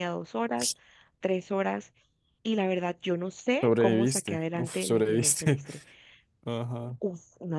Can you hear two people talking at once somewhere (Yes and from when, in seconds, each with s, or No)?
Yes, from 3.6 s